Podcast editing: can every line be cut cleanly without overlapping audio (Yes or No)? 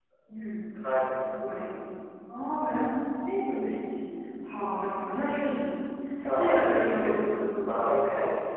No